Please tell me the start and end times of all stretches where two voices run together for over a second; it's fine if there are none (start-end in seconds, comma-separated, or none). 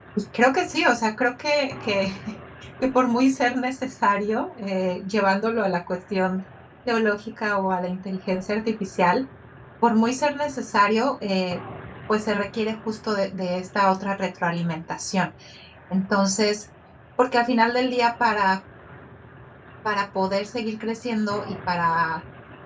none